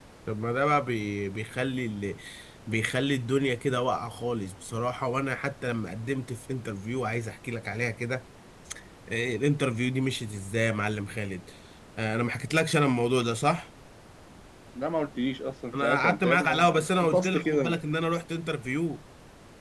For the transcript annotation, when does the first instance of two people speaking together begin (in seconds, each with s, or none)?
15.7 s